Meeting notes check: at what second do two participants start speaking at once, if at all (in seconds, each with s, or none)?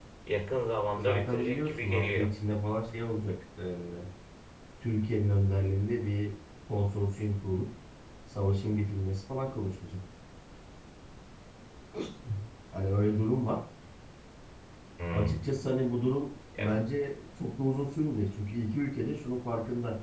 1.0 s